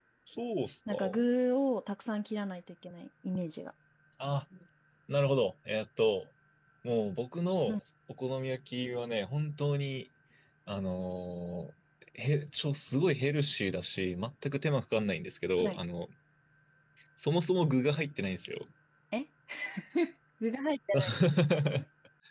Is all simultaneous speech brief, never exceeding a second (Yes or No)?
Yes